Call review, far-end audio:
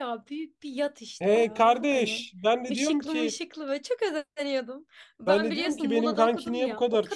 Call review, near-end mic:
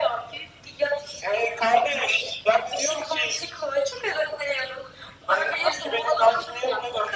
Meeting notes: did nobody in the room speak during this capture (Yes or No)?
Yes